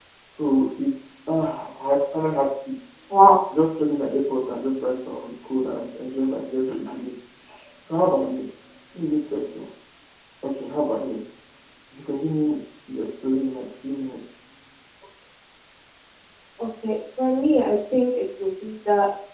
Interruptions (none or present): none